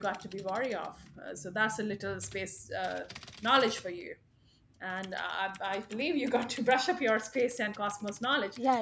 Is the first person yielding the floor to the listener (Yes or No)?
Yes